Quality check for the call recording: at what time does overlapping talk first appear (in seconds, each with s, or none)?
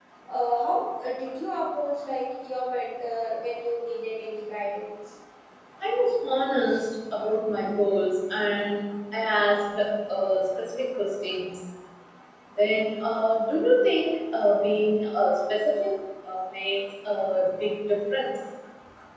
none